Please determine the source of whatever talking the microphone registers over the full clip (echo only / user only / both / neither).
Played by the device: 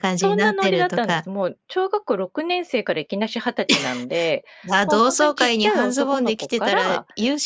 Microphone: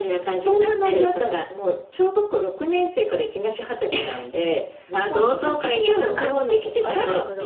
both